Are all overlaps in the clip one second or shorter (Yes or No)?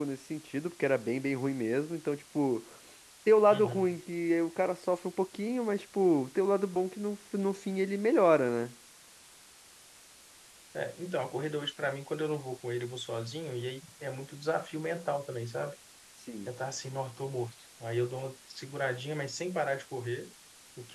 Yes